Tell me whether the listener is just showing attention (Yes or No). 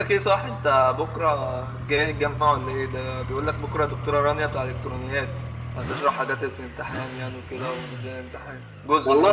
No